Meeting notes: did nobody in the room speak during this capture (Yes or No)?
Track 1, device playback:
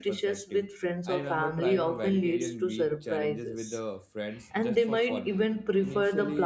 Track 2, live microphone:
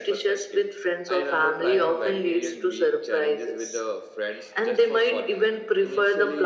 Yes